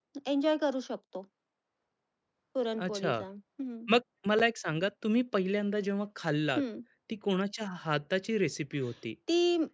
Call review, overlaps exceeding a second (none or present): none